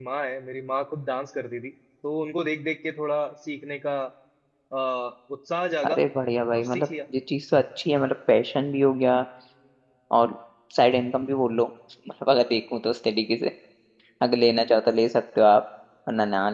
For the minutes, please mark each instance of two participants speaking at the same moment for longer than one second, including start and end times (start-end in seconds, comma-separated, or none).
none